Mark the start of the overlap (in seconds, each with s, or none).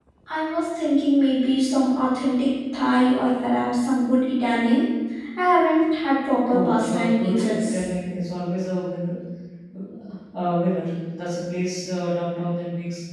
6.5 s